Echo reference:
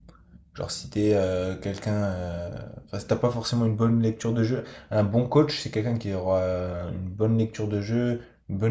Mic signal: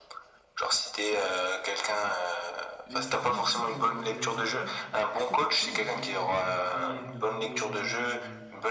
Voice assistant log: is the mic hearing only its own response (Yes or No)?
No